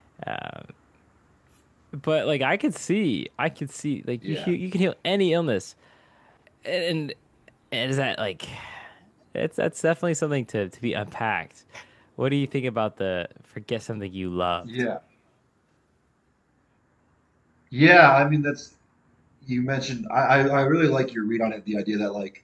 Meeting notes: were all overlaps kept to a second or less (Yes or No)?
Yes